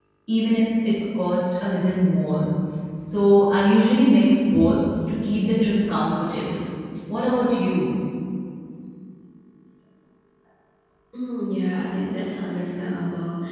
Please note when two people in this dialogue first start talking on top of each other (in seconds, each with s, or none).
none